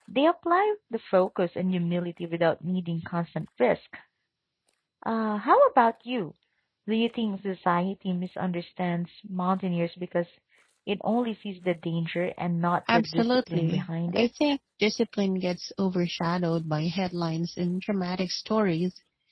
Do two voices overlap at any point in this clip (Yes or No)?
Yes